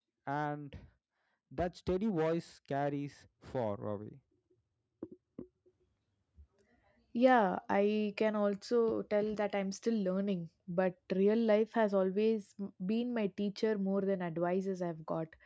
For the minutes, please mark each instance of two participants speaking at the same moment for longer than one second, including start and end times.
none

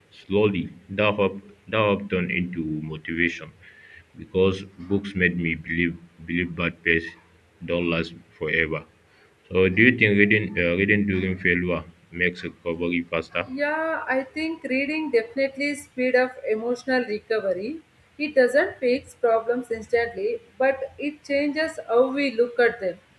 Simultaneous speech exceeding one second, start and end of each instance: none

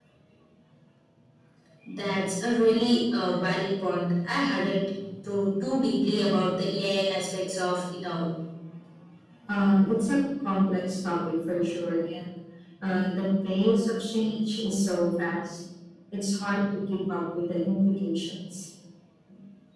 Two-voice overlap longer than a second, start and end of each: none

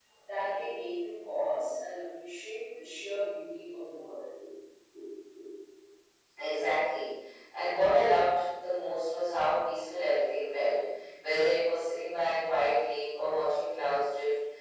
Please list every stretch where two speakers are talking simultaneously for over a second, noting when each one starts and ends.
none

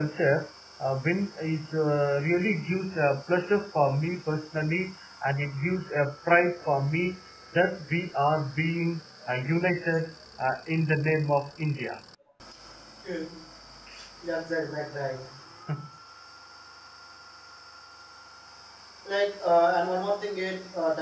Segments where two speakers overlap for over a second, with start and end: none

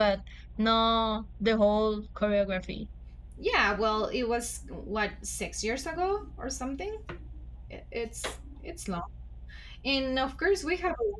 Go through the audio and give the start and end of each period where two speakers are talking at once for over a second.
none

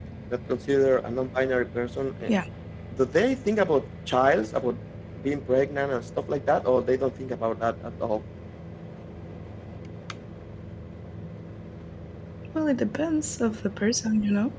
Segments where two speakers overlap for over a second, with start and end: none

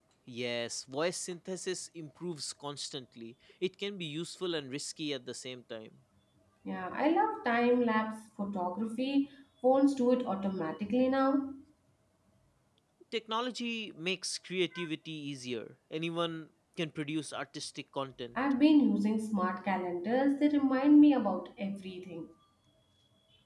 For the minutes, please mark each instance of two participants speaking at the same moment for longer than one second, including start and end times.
none

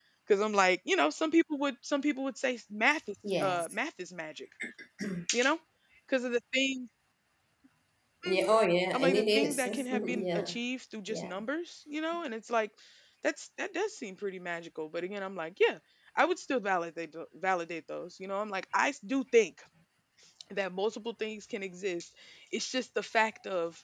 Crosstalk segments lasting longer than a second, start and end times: 8.9-10.6

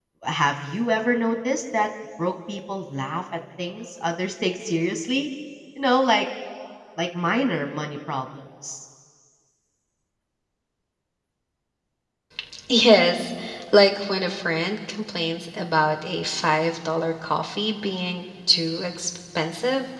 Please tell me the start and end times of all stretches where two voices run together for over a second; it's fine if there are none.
none

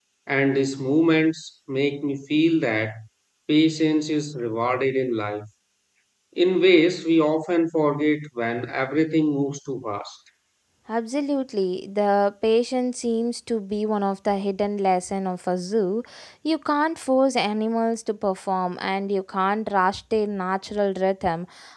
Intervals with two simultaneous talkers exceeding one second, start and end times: none

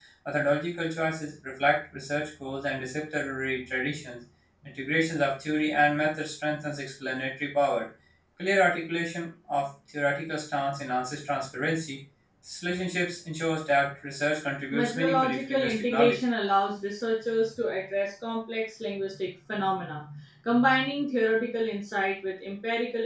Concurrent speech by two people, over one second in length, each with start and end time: 14.7-16.2

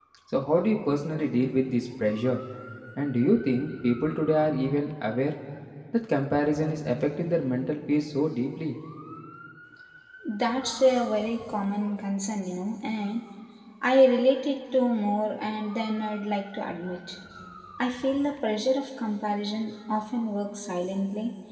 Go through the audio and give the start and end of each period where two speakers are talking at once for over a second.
none

